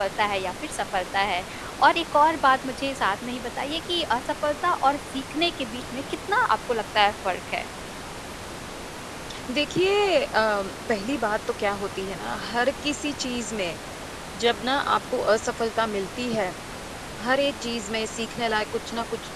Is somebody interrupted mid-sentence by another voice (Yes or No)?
No